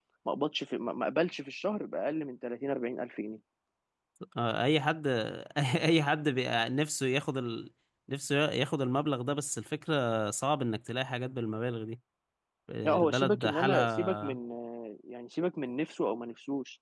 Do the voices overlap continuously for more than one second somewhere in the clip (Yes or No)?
Yes